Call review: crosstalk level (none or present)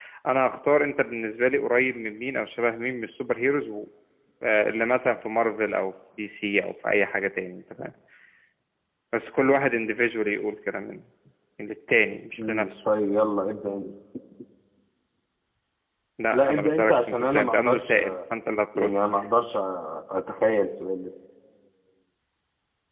present